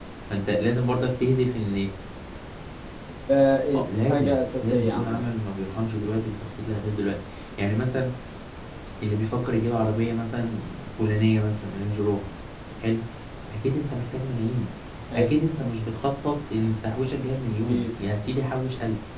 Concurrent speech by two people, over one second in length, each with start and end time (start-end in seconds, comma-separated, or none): 3.7-5.2